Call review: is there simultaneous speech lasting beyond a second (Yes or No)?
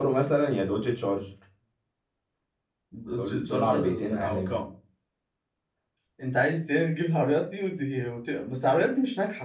Yes